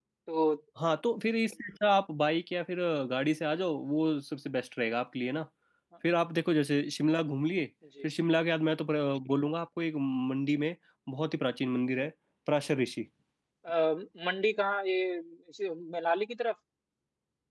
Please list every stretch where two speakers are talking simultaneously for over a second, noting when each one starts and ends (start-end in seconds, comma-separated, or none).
none